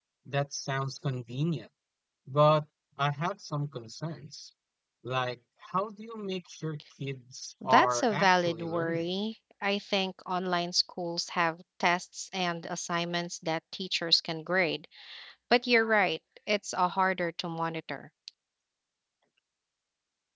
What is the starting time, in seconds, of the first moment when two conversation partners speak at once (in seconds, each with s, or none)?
7.6 s